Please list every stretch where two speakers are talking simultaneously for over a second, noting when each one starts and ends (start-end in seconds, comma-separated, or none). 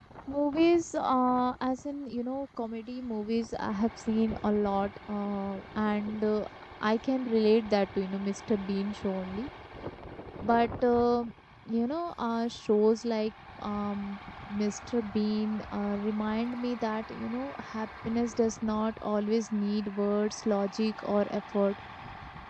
none